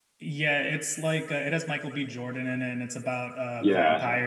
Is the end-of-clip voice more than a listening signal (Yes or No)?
Yes